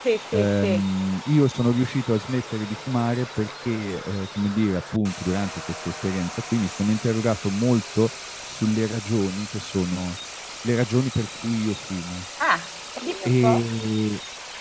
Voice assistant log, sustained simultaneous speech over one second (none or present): none